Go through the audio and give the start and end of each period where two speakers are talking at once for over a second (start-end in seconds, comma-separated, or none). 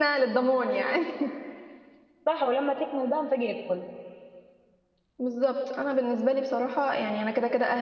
none